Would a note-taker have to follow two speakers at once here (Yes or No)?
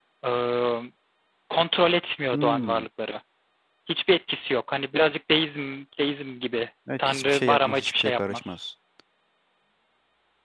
Yes